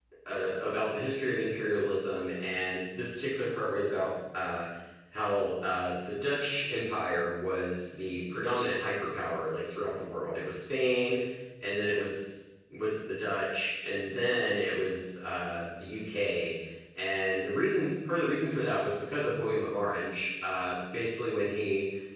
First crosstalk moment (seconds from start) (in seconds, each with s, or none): none